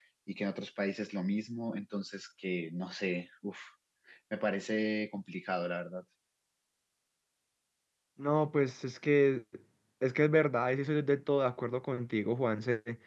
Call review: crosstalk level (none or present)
none